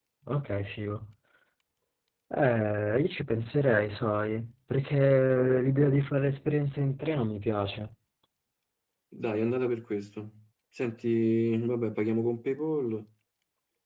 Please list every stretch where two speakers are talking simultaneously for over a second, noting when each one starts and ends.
none

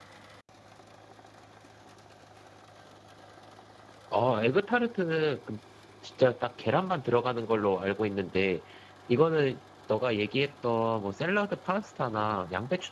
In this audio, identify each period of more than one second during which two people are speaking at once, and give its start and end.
none

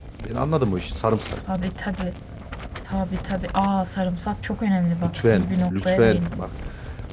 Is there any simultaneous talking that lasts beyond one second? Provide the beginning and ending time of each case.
5.0-6.4

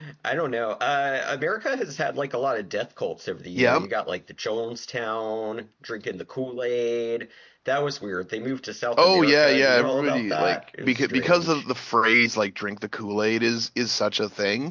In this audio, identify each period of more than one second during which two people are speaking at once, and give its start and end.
9.0-11.6

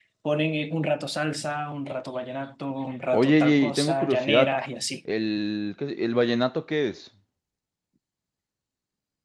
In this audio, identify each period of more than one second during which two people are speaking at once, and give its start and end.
3.1-4.5

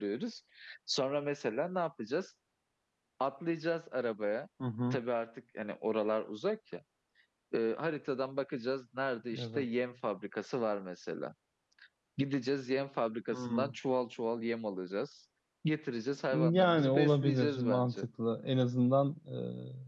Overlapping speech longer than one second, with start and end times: 16.3-17.9

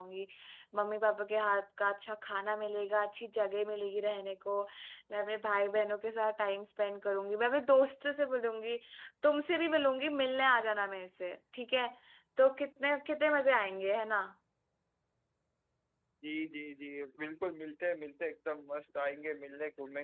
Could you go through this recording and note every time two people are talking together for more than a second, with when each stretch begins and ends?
none

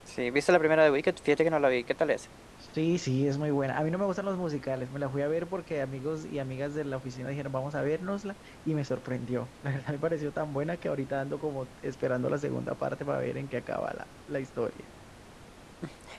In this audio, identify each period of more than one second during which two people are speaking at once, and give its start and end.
none

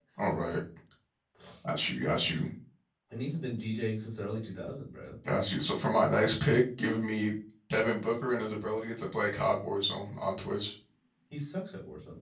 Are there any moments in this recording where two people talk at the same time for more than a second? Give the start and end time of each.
none

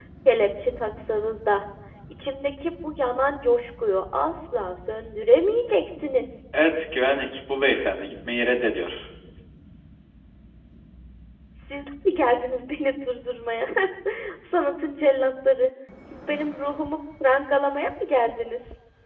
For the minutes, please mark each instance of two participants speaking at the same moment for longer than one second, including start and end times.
none

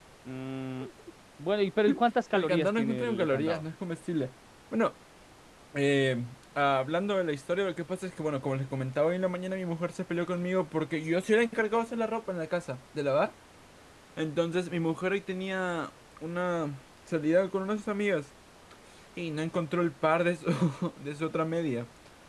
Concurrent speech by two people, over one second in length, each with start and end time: 2.3-3.6

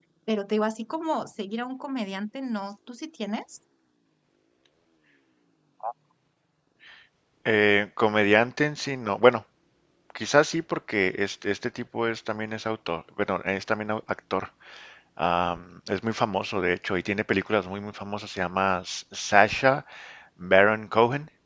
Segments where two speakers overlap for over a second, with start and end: none

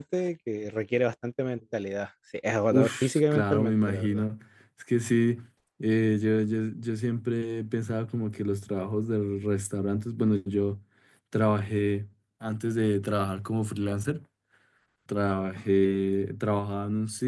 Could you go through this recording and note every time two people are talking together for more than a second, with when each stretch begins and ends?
2.7-4.2

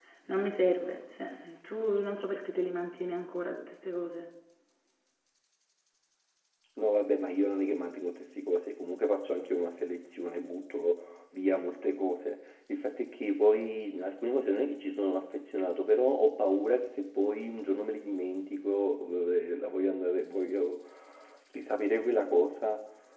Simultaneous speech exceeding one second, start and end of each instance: none

